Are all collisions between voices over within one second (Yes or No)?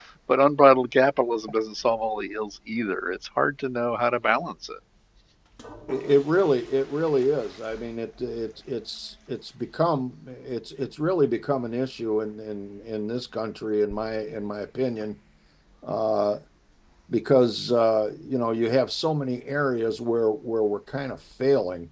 Yes